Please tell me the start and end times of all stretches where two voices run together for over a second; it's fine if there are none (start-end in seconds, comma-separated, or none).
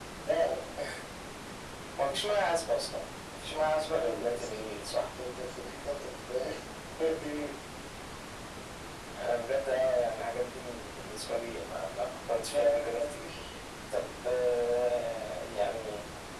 3.8-5.1